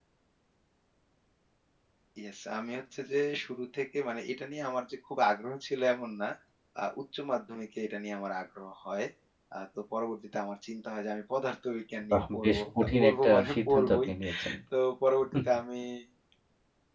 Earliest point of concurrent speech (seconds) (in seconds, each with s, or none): 12.1 s